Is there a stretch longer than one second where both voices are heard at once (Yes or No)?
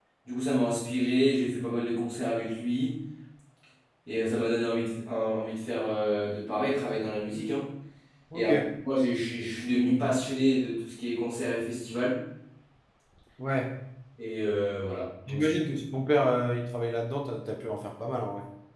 No